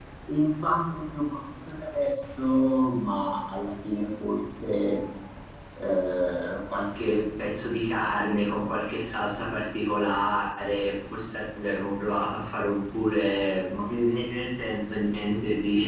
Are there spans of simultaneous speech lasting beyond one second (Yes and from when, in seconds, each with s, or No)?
No